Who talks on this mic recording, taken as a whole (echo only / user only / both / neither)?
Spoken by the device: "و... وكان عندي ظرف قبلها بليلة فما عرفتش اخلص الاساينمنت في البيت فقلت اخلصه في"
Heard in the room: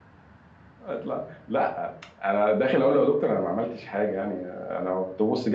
user only